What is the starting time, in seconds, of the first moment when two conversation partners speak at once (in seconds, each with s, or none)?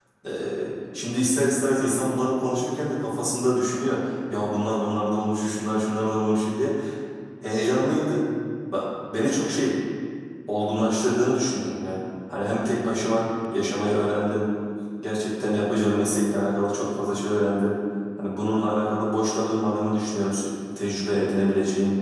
none